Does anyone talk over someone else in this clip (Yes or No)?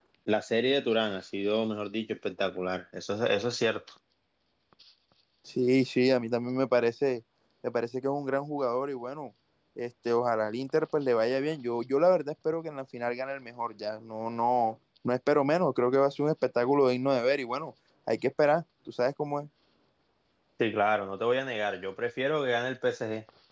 No